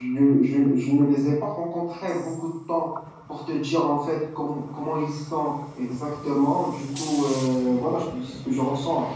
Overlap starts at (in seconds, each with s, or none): none